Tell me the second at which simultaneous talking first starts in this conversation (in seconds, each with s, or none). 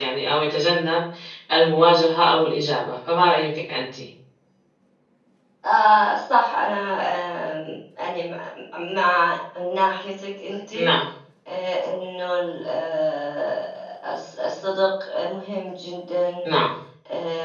none